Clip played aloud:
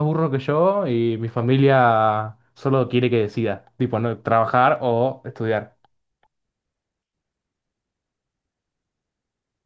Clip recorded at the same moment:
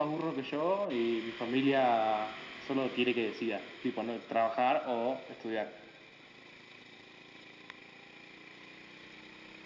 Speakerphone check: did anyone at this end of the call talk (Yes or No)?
No